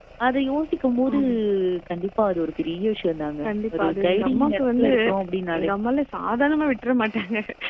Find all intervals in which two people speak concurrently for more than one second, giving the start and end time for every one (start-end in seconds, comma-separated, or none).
3.4-4.9